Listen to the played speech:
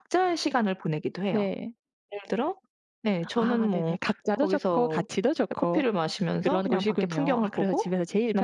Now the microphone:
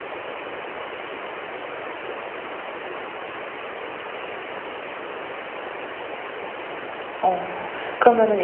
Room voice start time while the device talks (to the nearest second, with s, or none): 7 s